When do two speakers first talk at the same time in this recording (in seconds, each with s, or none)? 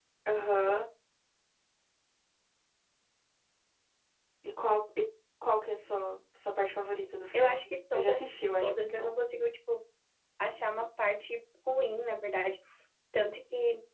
7.3 s